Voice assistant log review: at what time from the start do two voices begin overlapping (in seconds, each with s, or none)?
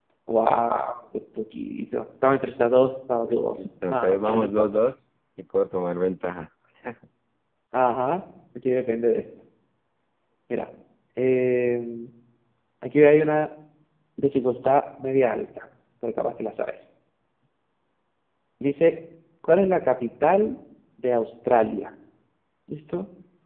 3.5 s